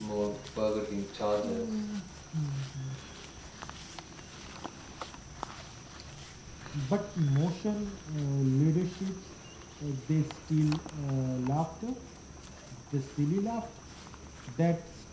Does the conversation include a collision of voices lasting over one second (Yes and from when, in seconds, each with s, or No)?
No